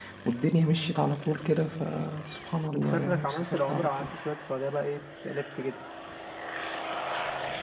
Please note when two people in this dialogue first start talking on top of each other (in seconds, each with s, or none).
2.7 s